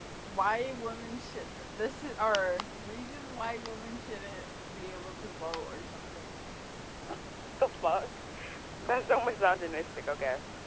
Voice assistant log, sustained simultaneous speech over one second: none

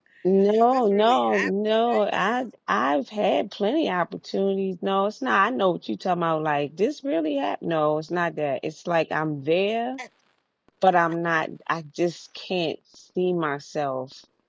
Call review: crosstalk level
present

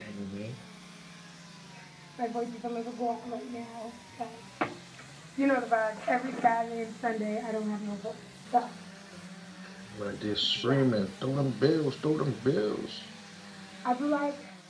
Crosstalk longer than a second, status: none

